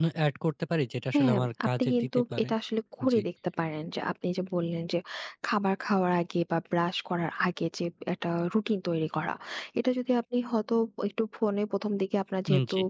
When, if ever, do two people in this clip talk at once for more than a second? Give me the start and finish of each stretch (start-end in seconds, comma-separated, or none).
1.1-2.5